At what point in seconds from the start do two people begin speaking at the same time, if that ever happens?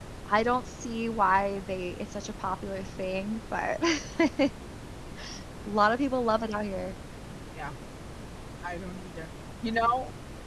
none

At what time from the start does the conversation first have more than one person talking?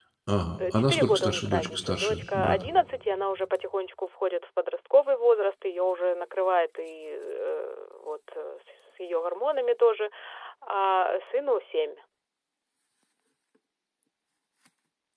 0.7 s

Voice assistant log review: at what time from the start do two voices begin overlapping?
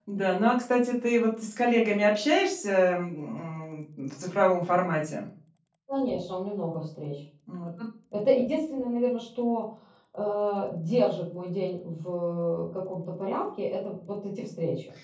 none

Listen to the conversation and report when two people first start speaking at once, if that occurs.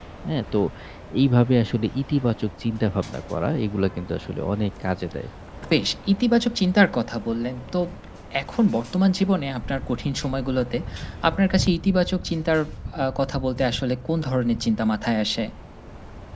none

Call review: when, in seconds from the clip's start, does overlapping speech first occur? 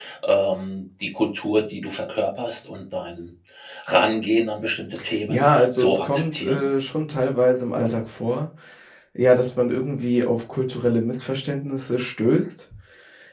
5.3 s

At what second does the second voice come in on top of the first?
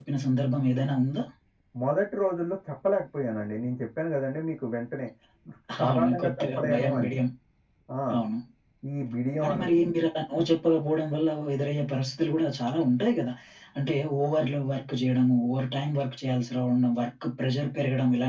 5.9 s

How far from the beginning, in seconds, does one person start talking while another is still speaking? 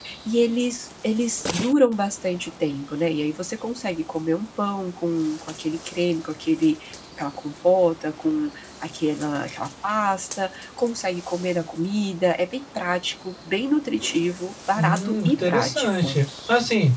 14.7 s

